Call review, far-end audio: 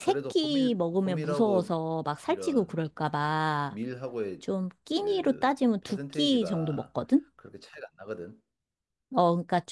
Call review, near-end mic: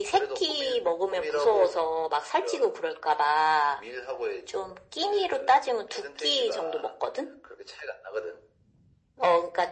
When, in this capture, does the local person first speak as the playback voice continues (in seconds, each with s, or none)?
none